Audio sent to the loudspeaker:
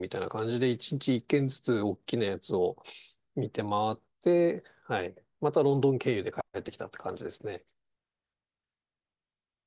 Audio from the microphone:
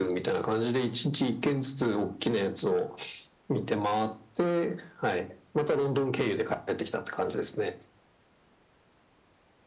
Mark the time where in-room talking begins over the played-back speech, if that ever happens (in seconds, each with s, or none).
none